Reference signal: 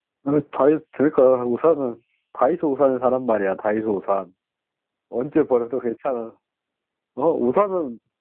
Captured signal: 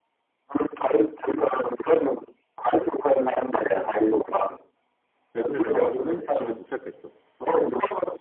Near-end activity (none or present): present